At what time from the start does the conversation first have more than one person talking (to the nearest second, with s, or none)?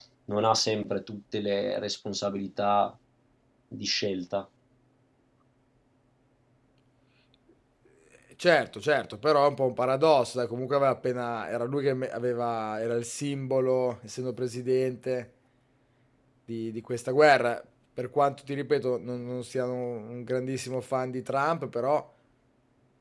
none